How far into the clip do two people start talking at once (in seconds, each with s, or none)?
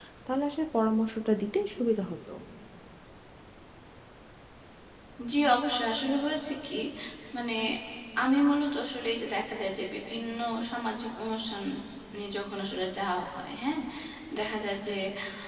none